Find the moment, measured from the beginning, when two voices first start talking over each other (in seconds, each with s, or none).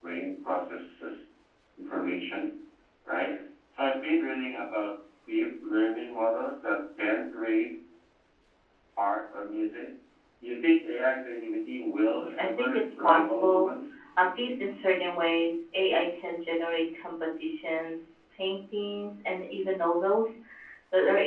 12.1 s